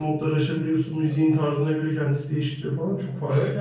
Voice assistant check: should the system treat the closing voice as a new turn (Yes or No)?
Yes